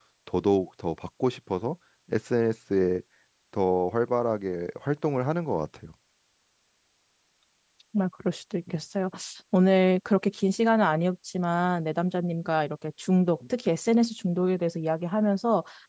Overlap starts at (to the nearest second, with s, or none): none